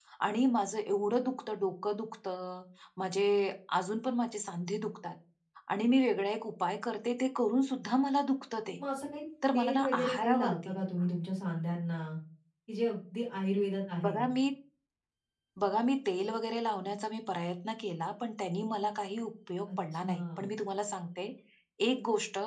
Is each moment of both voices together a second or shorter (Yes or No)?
No